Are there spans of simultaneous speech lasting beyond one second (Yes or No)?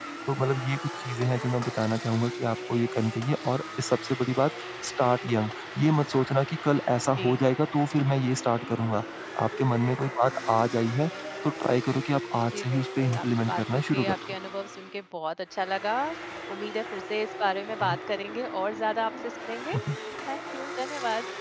Yes